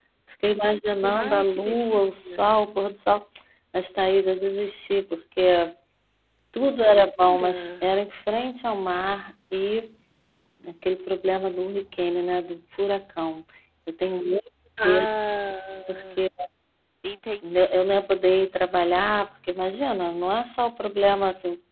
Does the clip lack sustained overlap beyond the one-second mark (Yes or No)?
No